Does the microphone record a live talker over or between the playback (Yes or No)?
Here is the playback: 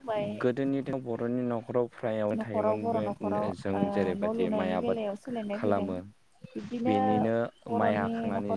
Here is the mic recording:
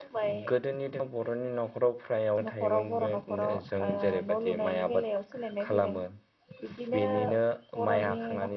No